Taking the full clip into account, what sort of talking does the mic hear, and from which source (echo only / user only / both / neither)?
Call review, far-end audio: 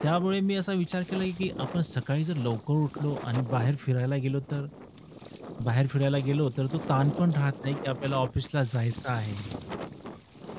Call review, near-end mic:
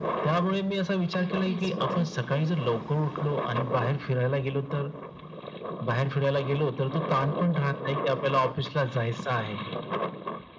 both